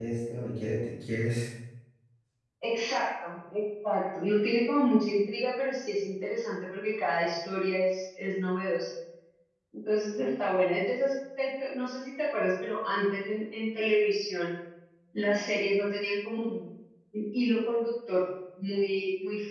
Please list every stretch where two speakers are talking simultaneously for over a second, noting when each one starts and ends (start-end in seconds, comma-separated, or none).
none